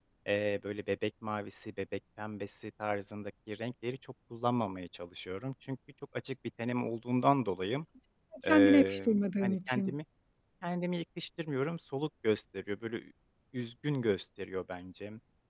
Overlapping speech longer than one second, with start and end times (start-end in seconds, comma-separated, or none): 8.5-9.9